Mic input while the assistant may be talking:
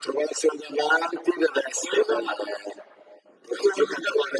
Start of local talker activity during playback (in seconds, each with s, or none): none